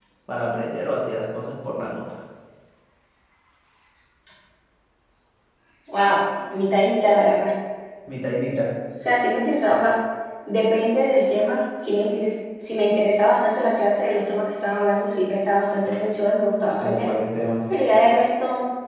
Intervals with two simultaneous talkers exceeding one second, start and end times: none

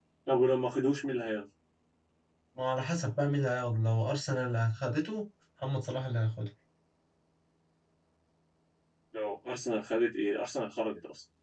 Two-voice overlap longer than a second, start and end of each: none

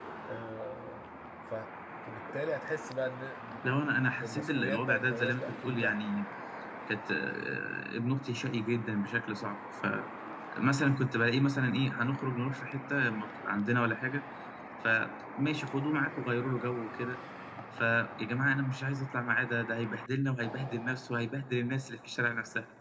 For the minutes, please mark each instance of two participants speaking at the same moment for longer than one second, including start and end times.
4.2-6.0

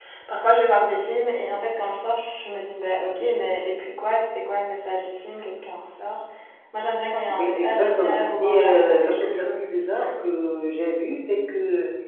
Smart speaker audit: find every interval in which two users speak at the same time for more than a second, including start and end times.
7.3-10.1

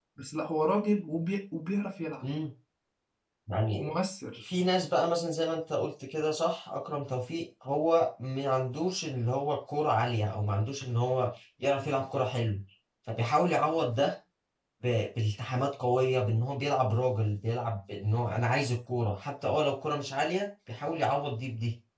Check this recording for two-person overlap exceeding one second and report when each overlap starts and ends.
none

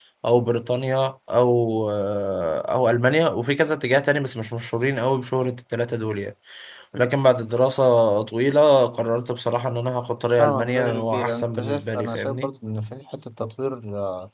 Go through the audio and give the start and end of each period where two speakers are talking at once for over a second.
10.4-12.5

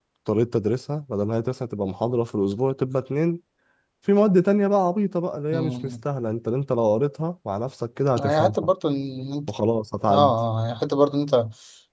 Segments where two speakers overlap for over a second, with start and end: none

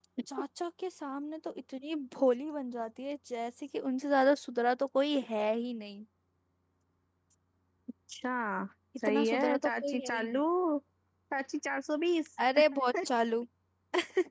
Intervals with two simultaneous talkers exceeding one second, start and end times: 9.1-10.4

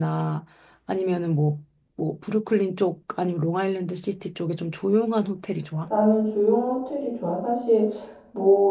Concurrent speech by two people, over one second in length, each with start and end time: none

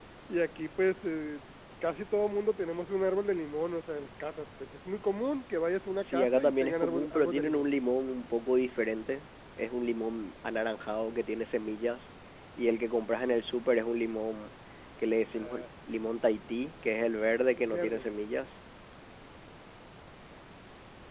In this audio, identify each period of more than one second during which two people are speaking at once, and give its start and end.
6.0-7.7

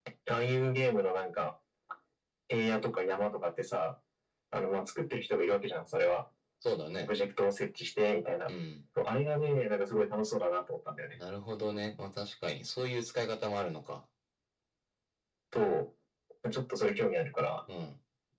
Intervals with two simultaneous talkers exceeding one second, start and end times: none

